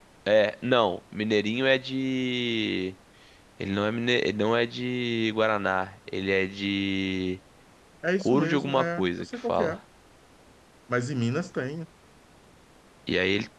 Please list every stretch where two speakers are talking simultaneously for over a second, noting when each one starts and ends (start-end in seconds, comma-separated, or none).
8.2-9.8